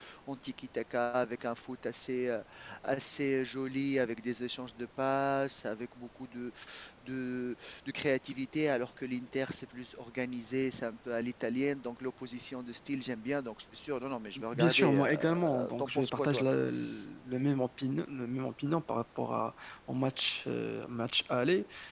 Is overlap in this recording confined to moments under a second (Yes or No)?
No